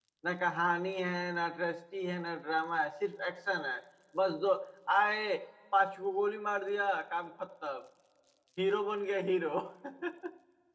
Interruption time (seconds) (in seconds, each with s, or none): none